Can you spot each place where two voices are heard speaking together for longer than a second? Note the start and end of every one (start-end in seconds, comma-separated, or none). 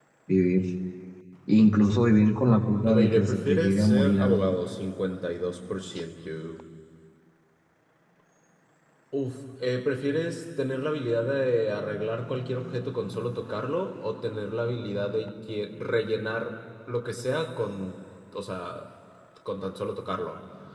2.8-4.5